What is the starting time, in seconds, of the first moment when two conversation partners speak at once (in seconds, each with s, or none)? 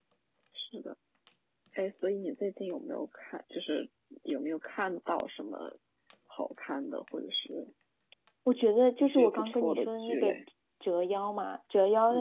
9.0 s